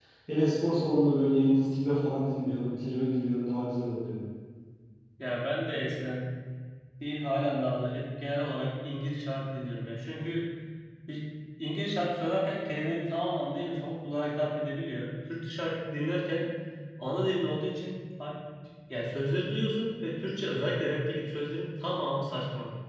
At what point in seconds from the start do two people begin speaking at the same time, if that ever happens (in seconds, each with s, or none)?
none